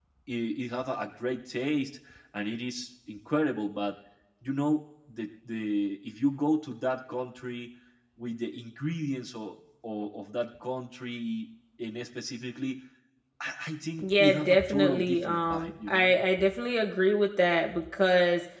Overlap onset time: 14 s

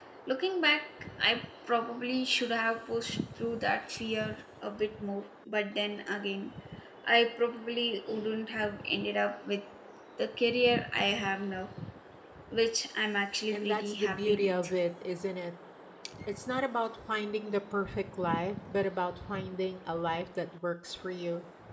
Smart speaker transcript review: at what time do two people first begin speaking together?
14 s

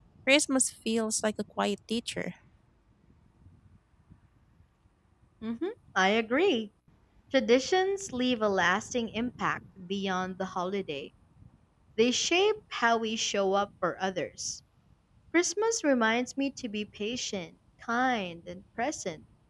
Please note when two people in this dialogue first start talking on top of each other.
none

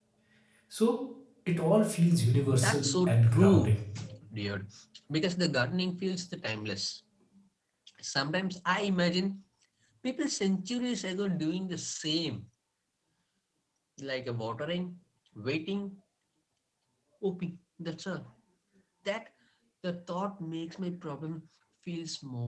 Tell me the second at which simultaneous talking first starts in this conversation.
2 s

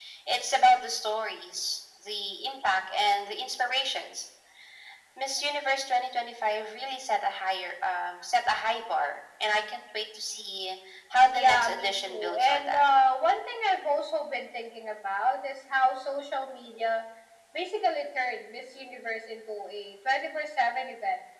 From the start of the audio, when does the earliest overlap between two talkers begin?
11 s

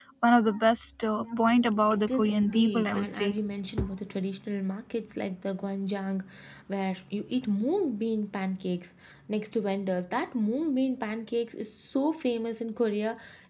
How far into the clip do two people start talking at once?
2 s

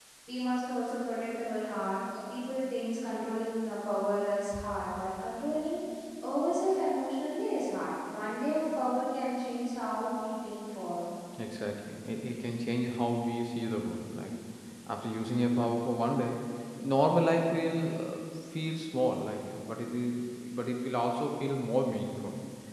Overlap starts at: none

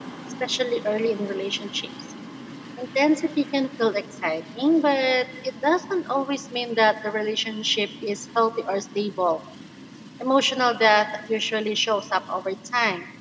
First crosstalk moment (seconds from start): none

